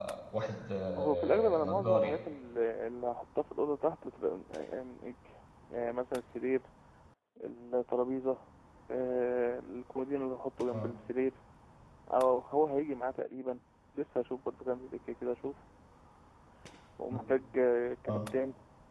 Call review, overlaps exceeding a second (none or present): present